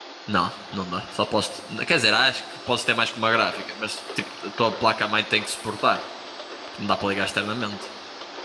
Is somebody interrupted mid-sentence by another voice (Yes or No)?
No